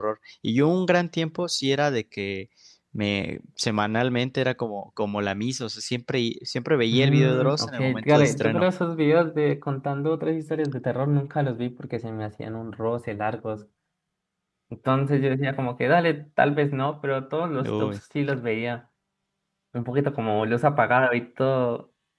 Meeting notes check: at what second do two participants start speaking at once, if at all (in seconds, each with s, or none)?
6.9 s